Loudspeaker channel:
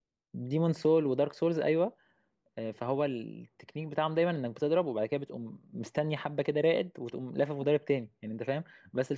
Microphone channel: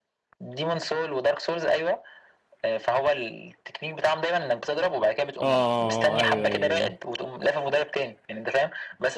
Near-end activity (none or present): present